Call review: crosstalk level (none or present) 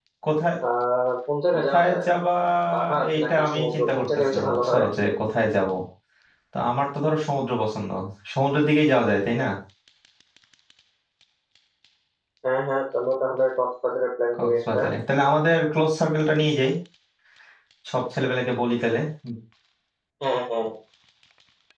present